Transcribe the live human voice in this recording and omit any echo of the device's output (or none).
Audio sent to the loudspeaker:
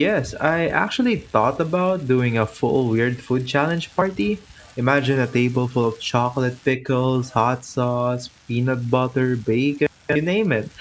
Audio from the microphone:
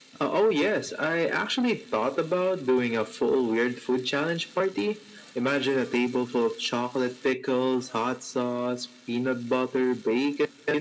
none